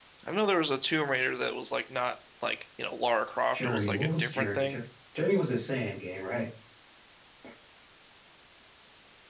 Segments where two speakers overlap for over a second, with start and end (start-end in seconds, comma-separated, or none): 3.5-4.8